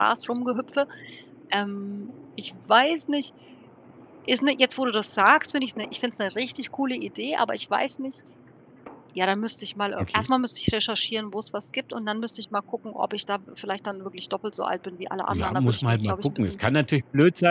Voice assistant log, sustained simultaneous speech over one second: present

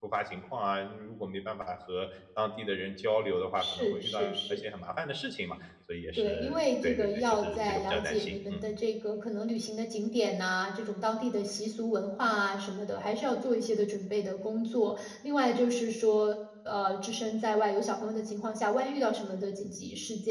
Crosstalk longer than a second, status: present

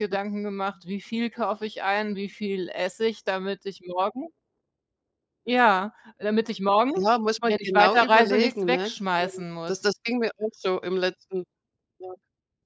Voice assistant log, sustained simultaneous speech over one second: present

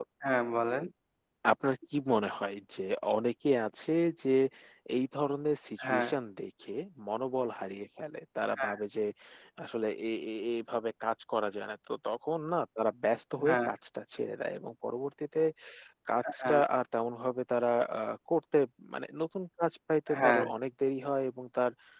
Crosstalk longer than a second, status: none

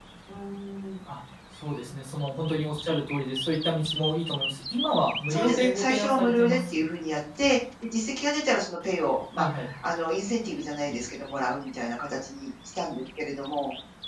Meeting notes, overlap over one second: present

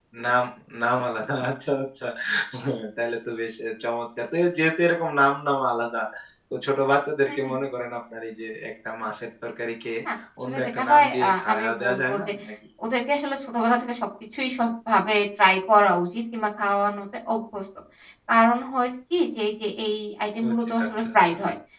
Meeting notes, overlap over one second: present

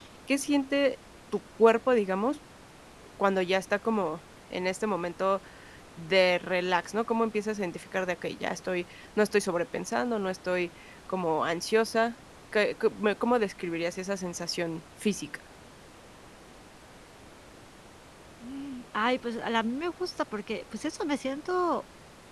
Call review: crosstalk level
none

